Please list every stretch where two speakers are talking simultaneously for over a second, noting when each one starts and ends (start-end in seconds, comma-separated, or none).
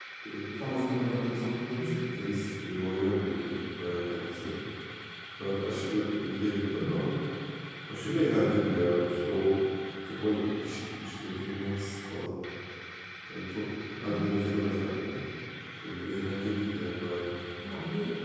0.6-1.9